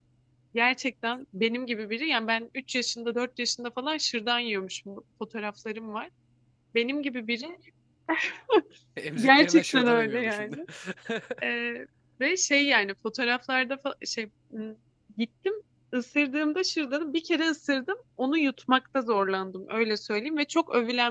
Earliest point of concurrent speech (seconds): 9.2 s

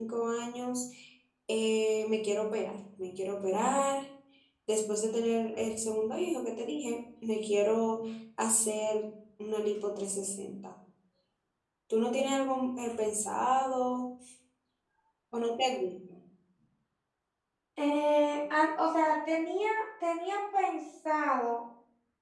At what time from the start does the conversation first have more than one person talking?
none

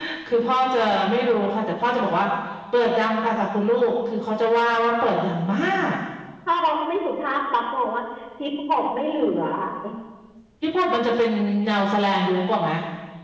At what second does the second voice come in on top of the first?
none

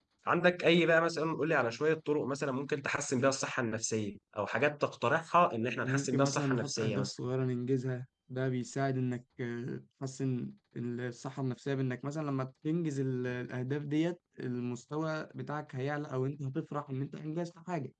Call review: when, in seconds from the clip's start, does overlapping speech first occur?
5.8 s

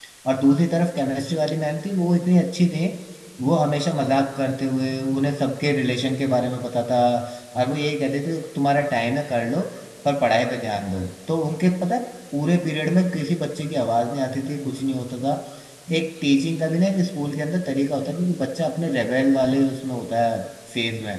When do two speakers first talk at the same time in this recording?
none

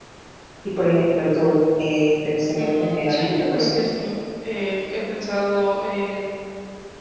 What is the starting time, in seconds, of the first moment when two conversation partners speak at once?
2.6 s

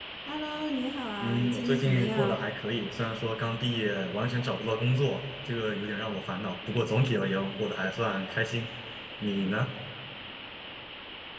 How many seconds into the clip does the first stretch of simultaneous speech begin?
1.2 s

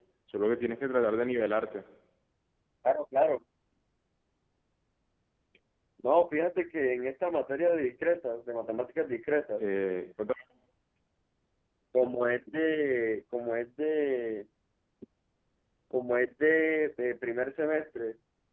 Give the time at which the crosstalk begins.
none

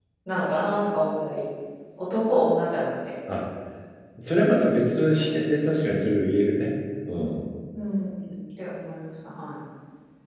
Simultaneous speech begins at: none

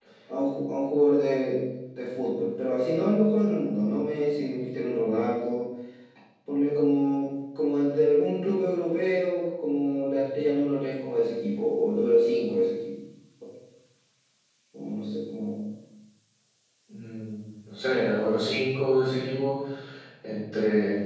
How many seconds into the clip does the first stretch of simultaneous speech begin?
none

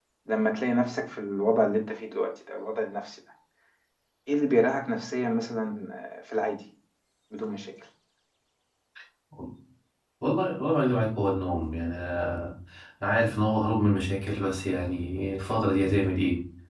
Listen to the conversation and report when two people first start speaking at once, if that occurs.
none

